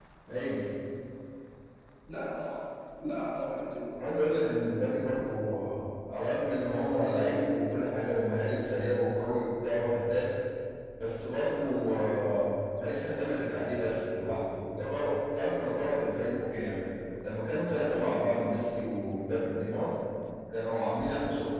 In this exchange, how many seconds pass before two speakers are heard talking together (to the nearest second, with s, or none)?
none